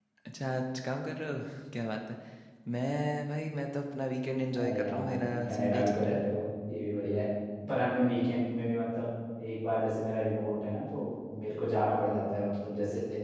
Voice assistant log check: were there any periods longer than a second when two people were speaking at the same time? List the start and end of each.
4.6-6.2

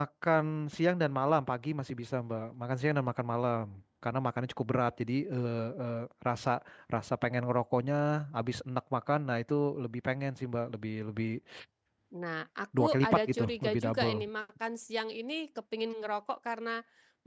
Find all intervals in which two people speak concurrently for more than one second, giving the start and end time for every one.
12.8-14.2

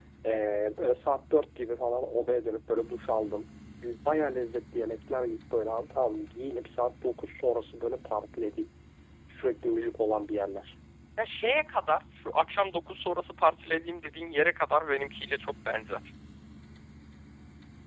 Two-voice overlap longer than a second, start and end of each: none

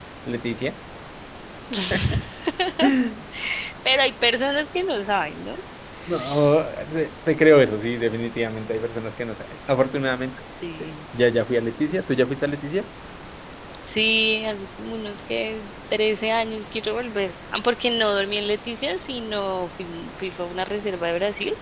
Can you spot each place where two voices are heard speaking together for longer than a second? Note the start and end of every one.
none

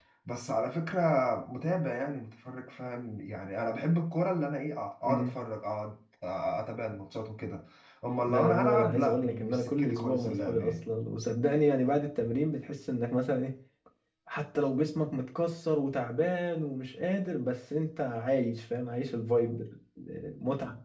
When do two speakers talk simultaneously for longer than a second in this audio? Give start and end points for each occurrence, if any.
8.2-10.8

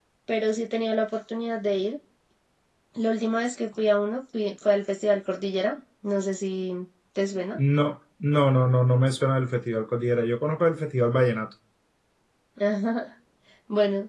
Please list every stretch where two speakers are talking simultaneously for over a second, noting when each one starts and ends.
none

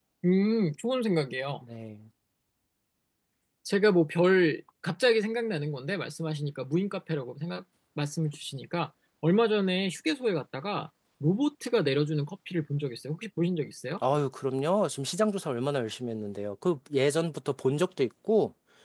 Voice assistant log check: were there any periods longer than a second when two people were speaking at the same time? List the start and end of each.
none

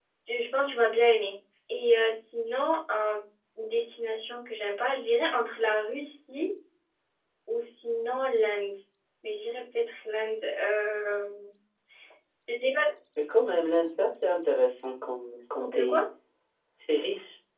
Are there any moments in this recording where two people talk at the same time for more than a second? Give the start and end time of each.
none

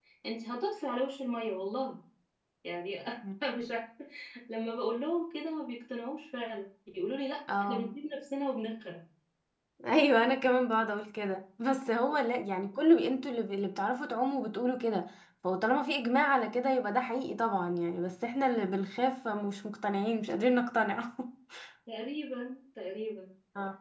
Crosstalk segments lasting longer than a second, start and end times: none

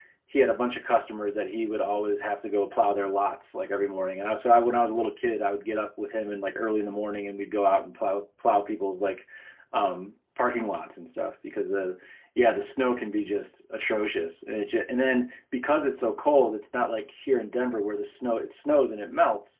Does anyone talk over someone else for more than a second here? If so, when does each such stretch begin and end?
none

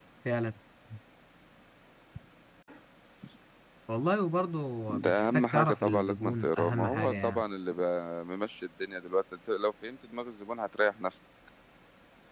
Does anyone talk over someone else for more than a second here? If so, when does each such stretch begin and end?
4.9-7.4

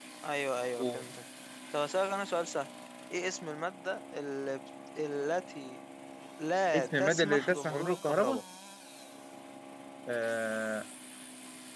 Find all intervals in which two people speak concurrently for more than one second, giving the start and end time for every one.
6.7-8.4

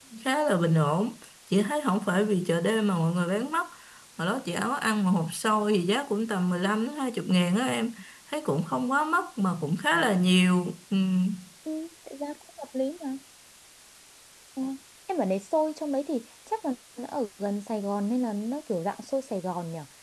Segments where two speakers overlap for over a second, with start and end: none

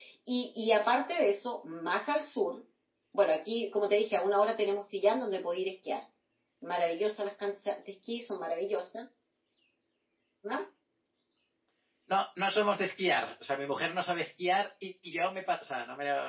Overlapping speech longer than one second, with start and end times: none

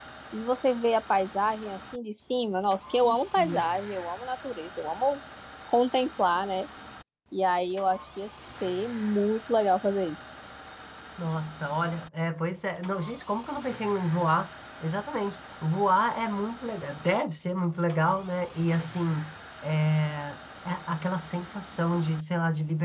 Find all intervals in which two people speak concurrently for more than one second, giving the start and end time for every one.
none

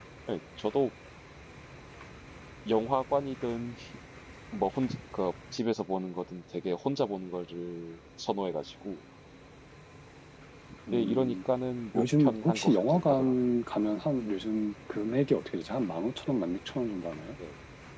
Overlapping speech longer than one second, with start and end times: 11.9-13.3

